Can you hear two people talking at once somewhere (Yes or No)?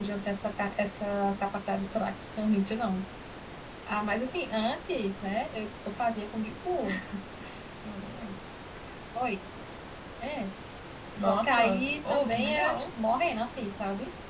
Yes